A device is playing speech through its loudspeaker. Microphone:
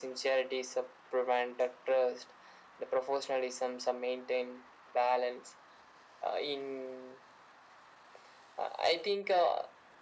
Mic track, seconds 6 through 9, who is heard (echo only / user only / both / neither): echo only